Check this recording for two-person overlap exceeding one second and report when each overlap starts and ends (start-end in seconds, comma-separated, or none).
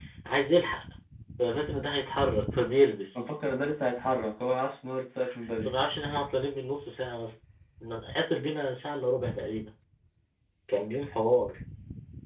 none